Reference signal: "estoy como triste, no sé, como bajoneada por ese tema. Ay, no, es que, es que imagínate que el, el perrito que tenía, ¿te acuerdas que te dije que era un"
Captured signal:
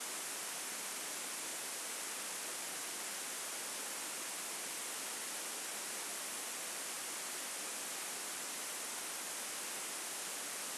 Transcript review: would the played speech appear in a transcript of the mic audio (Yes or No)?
No